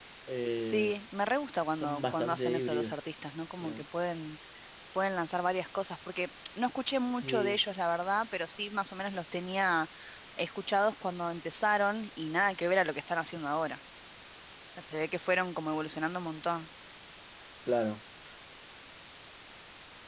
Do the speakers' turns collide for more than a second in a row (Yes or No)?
Yes